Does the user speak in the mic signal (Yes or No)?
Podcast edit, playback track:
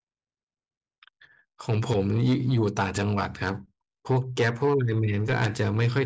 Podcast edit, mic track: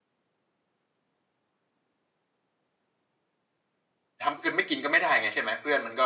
Yes